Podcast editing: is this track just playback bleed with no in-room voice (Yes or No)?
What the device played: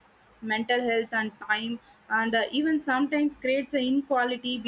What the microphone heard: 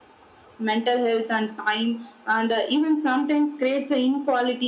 Yes